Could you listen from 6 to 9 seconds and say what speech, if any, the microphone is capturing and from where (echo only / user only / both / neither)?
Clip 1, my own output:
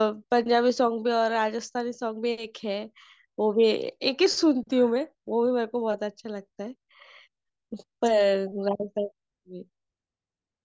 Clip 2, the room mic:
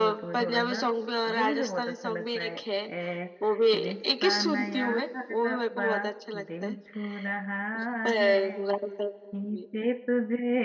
both